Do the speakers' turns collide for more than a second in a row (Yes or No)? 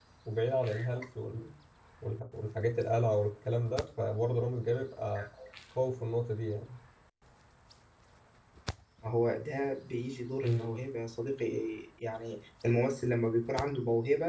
No